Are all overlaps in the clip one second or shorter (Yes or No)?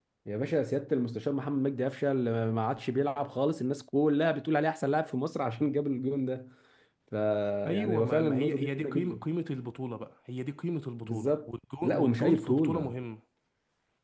No